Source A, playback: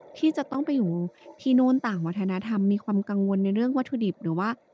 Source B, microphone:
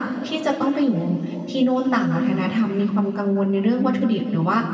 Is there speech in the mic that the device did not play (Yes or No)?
No